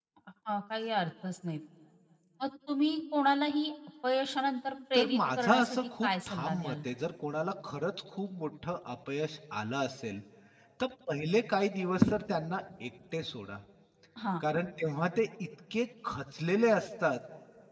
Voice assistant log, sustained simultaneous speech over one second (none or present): present